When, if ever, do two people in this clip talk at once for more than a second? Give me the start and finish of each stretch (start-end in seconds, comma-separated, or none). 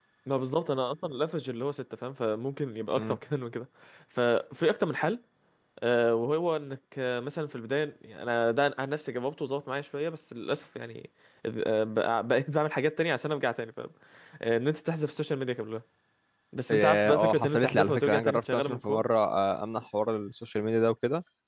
16.7-19.0